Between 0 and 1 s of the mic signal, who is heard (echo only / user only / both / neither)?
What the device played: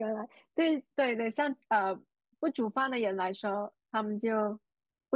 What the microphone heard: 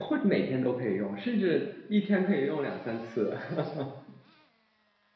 user only